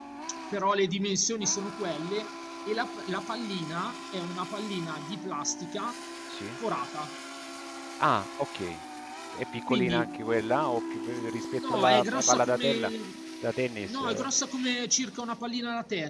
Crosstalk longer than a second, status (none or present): present